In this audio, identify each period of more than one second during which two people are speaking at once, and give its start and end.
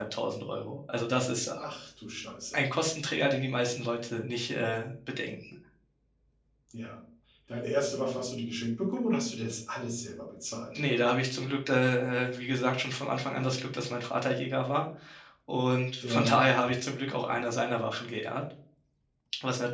none

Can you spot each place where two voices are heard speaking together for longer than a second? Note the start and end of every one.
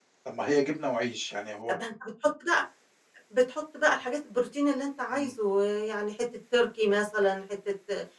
none

